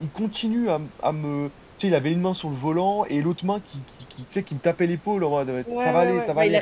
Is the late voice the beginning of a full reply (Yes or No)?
Yes